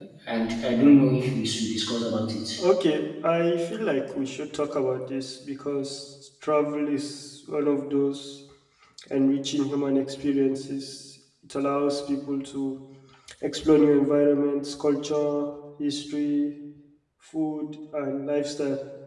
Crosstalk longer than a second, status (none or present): none